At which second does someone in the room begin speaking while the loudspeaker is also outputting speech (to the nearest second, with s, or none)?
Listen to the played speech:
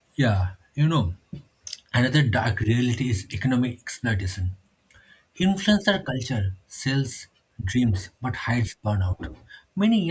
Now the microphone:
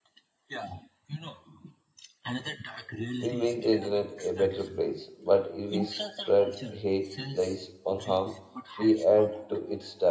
3 s